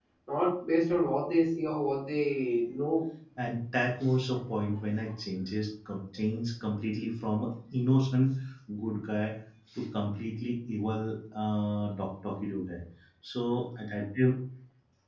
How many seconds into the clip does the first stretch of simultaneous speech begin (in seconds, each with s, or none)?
none